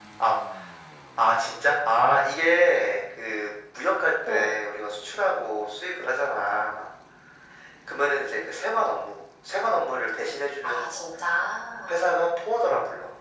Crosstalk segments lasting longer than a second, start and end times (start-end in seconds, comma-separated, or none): none